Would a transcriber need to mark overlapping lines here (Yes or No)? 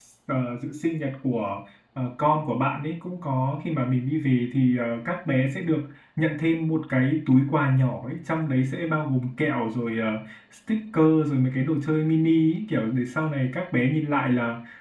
No